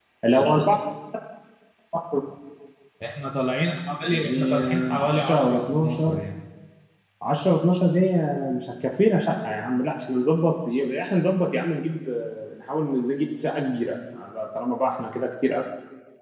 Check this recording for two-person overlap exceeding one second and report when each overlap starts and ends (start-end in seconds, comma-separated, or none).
4.0-6.2